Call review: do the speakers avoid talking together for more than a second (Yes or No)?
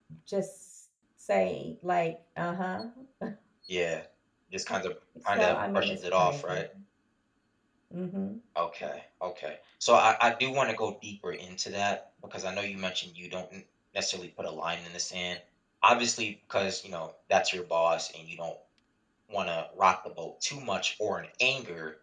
No